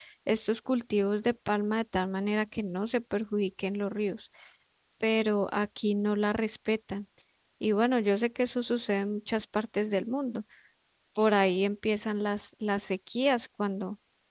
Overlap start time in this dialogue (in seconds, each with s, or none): none